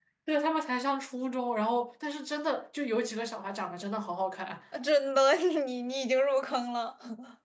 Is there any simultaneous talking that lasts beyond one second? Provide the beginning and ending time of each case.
none

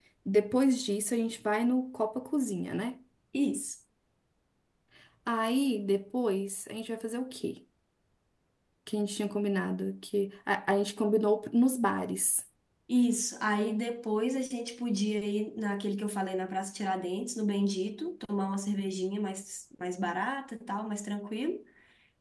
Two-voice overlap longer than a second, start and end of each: none

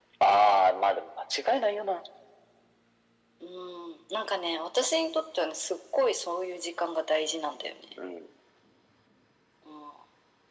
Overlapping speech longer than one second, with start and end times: none

